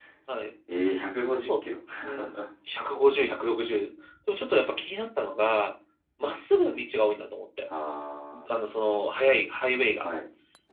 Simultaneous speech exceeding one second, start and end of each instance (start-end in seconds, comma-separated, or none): none